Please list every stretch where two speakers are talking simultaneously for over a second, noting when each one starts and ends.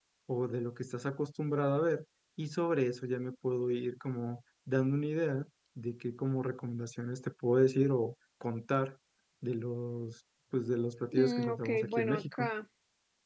11.1-12.5

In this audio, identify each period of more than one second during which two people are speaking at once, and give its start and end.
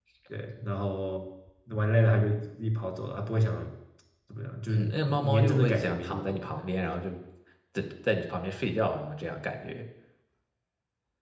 4.7-6.6

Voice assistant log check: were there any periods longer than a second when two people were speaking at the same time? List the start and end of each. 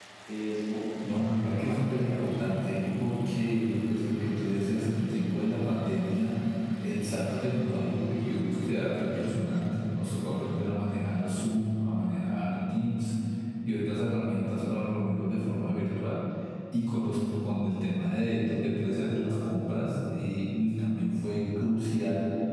1.0-2.3

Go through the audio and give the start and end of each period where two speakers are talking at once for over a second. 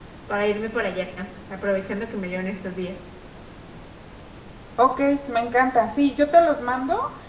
none

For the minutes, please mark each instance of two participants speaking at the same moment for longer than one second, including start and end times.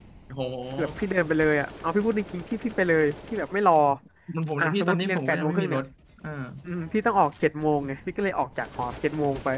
4.6-5.8

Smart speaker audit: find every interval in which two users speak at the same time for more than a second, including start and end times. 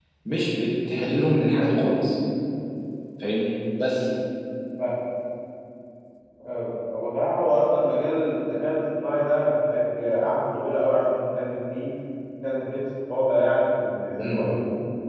none

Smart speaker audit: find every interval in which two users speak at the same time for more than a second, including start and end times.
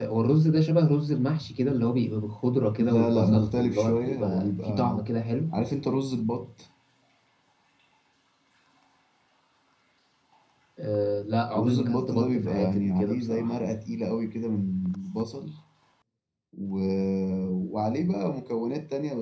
2.8-5.1, 11.5-13.6

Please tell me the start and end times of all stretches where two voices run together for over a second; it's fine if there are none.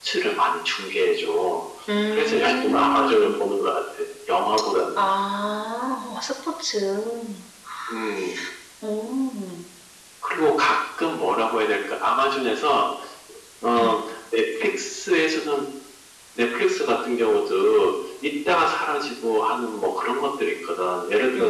2.1-3.4

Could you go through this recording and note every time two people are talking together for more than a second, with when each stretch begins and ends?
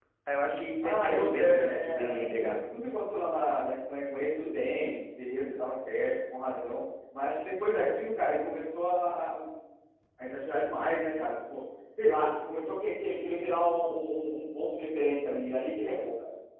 0.8-2.5

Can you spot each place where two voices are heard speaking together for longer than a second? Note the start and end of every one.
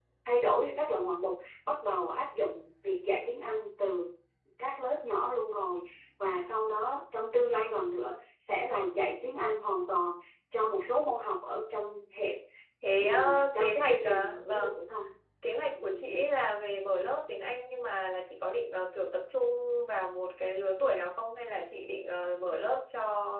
13.0-14.7

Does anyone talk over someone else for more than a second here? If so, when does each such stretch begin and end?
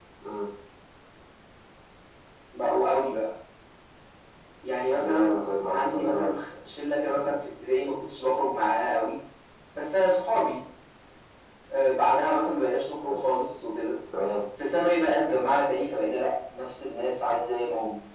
4.9-6.3

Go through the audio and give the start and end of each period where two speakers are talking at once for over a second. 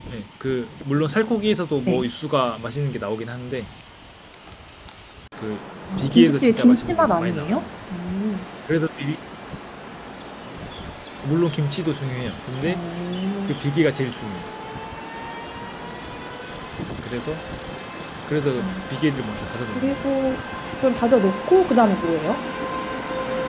6.0-7.7

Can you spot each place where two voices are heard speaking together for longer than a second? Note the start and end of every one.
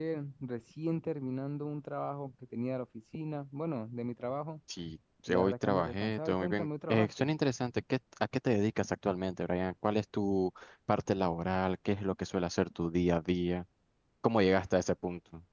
5.3-7.3

